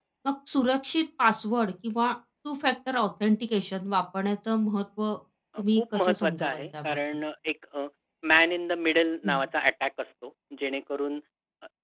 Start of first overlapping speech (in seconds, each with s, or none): 5.6 s